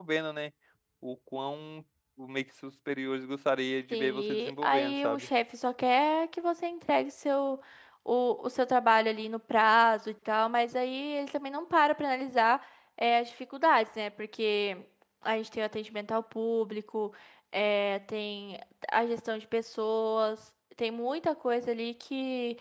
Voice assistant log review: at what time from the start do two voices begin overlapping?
3.9 s

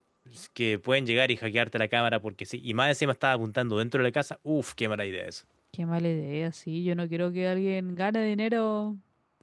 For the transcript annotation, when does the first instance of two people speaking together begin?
none

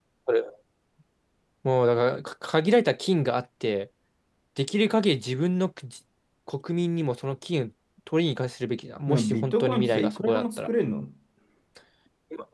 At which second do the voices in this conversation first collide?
9.1 s

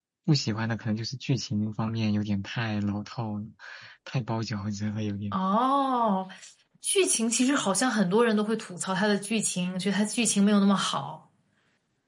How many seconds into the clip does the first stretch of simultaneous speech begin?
none

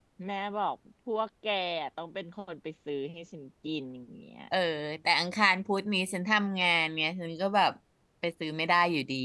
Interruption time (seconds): none

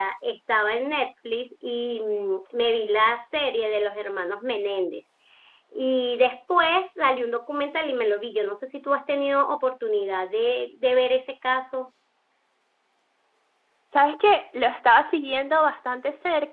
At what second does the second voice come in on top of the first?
none

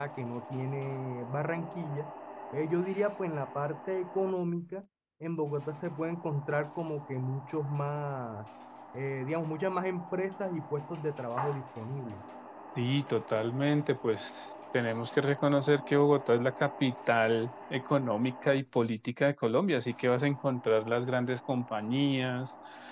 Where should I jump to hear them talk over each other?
none

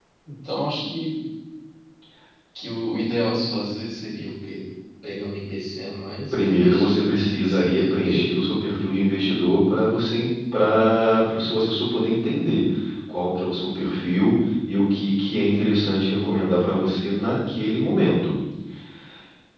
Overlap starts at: 6.3 s

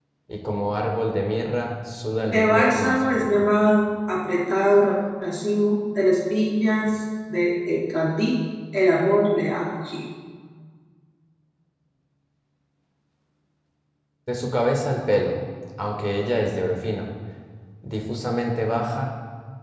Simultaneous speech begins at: 2.2 s

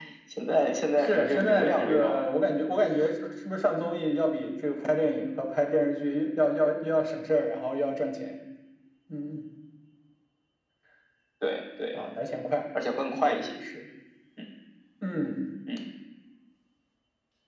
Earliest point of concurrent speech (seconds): 1.0 s

